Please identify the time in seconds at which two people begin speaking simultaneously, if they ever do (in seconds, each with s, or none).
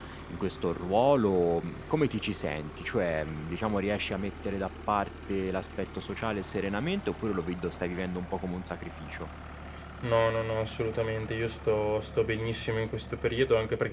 none